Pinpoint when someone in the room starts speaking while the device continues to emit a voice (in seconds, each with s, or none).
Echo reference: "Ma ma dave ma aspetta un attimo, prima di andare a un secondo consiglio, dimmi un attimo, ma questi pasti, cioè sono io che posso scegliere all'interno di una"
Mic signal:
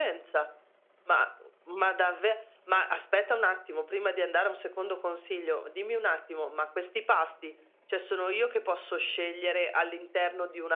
none